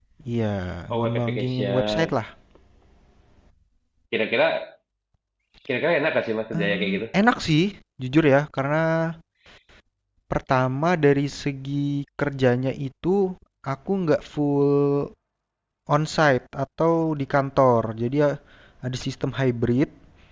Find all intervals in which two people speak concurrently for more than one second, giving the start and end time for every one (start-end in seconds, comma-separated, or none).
0.9-2.1